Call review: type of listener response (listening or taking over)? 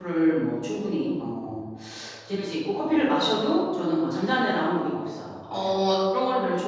listening